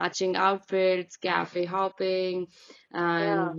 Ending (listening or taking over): listening